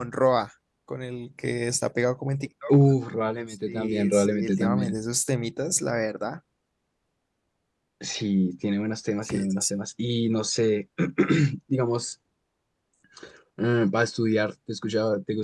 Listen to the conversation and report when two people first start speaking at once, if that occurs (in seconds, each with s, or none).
3.7 s